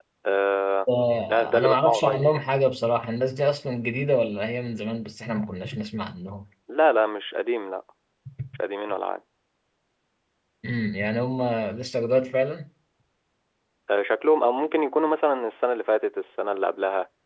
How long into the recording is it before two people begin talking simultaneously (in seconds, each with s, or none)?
1.3 s